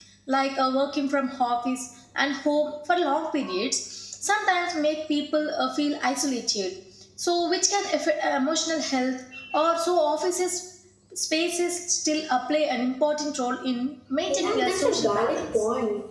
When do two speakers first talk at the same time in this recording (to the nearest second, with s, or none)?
14 s